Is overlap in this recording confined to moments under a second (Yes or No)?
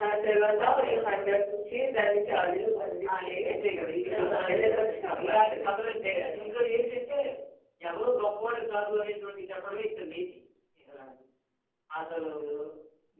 No